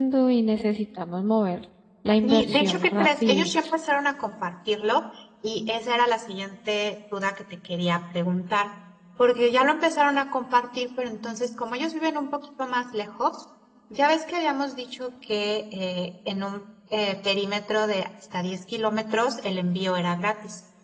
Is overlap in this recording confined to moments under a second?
No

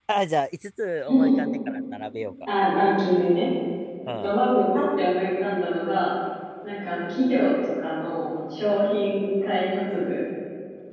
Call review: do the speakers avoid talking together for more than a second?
Yes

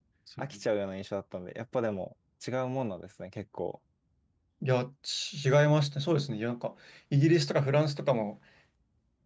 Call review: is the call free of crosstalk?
Yes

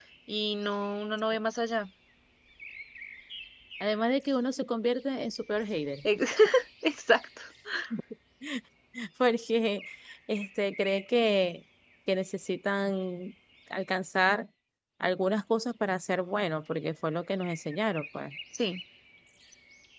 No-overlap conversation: Yes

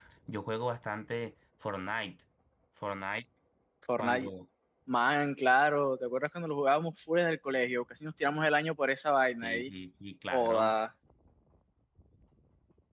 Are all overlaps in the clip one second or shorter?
Yes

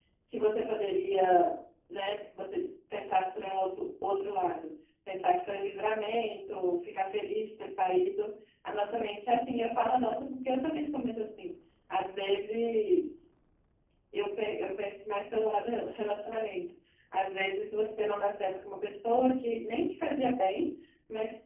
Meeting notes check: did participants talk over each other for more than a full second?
No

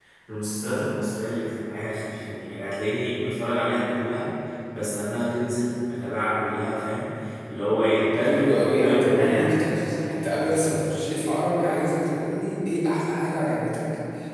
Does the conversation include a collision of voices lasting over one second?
Yes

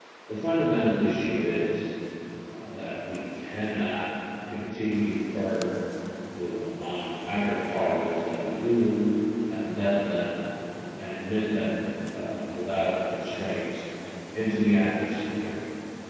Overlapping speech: No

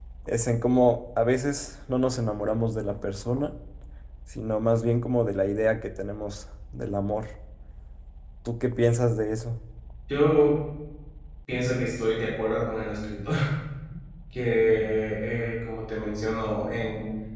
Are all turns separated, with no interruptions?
Yes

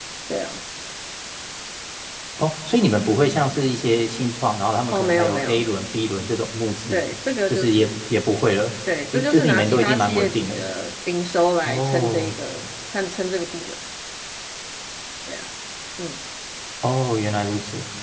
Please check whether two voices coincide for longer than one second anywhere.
Yes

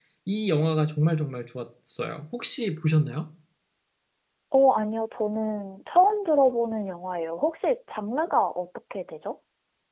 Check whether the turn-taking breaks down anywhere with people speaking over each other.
No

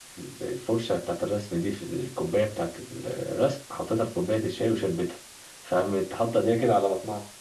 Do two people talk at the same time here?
No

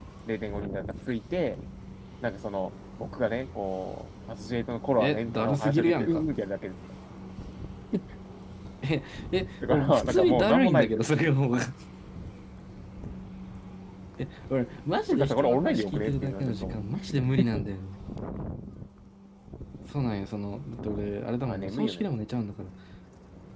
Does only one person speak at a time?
No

